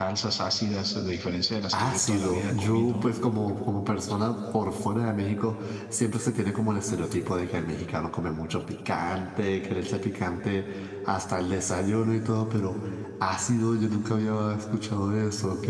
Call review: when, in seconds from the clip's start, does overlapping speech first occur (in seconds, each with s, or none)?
1.7 s